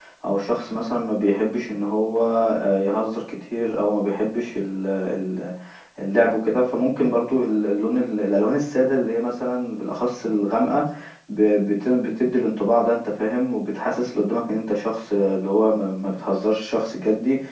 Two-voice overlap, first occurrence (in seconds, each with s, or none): none